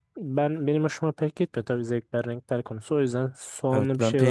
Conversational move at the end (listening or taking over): taking over